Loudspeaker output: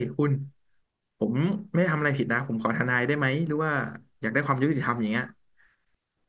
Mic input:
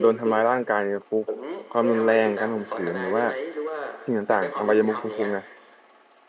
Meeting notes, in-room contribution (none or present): present